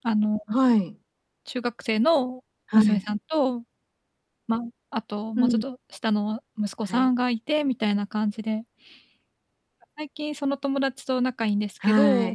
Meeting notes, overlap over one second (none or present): none